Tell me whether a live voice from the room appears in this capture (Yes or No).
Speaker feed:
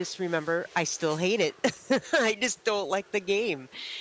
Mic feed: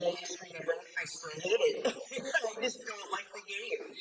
No